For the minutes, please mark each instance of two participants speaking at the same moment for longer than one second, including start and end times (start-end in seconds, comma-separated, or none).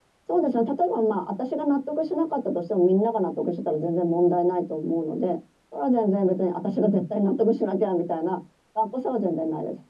none